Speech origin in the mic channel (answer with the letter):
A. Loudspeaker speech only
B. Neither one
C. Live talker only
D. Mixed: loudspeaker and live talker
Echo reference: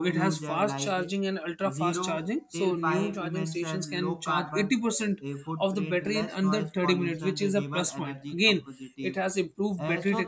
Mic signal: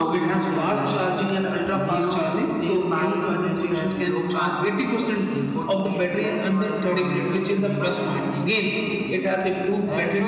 A